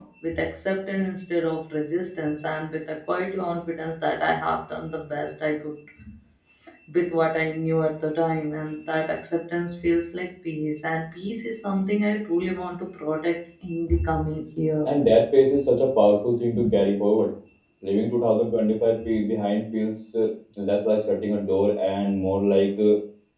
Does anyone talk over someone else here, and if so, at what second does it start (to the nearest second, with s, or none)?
none